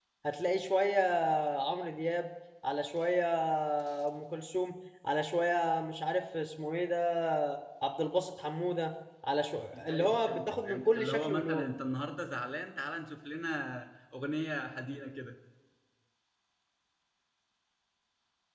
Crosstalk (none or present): present